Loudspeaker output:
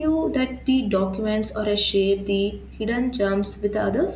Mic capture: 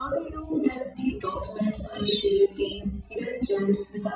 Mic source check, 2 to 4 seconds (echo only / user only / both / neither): echo only